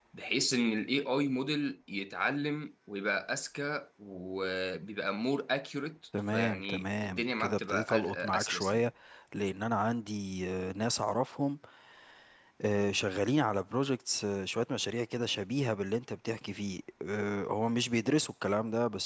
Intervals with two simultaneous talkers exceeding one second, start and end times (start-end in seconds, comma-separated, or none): 6.3-8.9